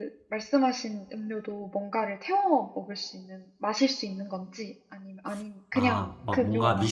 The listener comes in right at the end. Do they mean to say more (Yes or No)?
Yes